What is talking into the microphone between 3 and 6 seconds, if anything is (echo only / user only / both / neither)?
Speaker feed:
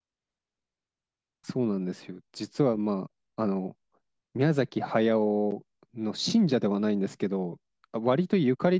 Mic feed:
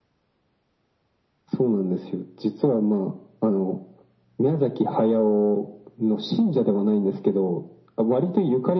echo only